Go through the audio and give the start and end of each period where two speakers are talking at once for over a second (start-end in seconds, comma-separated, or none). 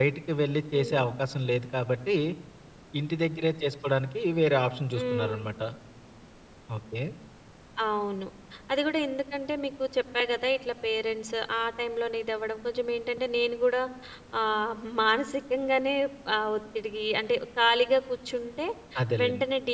none